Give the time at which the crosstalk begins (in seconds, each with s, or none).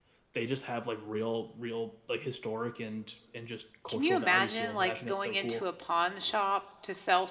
3.9 s